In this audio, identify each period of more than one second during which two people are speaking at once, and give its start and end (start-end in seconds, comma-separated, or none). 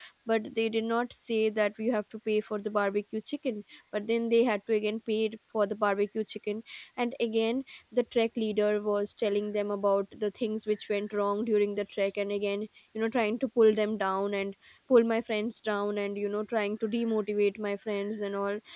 none